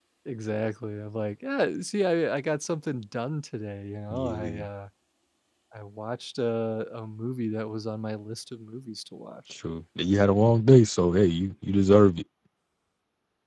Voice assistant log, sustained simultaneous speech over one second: none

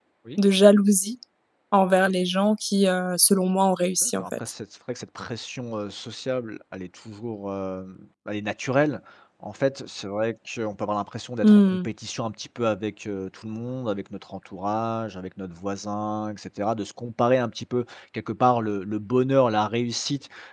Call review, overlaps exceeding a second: none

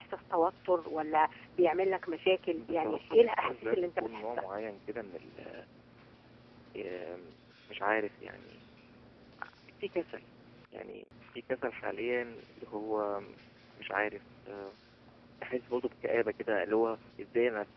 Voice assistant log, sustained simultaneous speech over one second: present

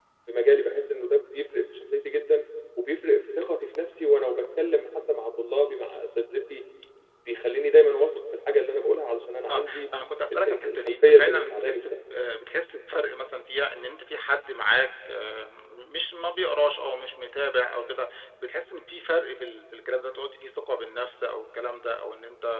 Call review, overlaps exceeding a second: present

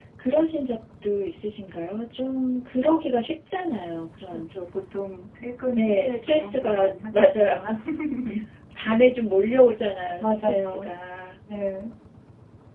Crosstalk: present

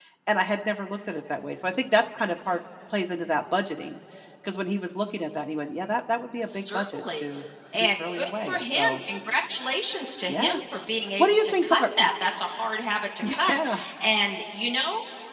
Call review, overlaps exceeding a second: present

